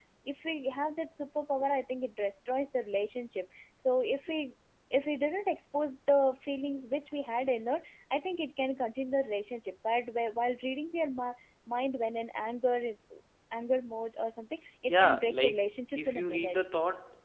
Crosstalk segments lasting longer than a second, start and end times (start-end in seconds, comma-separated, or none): 14.9-16.6